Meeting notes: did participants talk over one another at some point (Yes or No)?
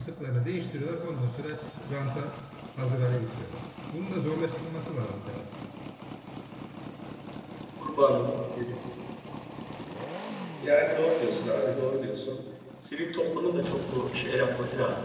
No